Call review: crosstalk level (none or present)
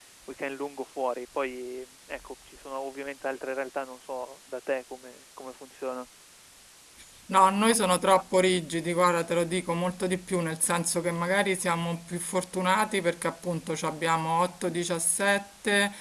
none